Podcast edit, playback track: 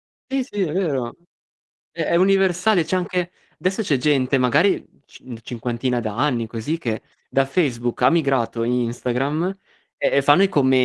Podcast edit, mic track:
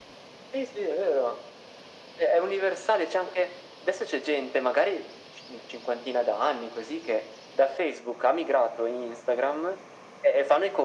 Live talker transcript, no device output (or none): none